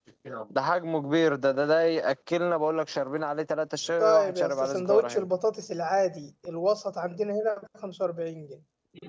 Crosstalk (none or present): present